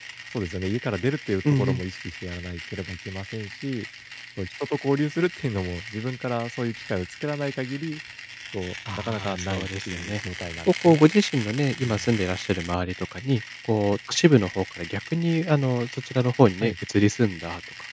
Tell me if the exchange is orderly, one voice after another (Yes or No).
No